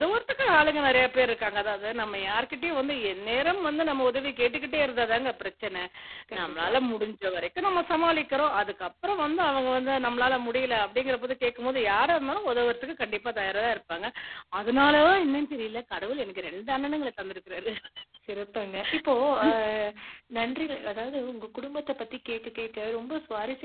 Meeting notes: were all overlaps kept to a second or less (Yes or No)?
Yes